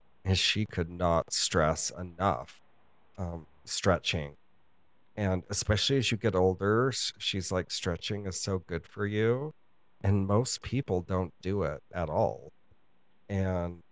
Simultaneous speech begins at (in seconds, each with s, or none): none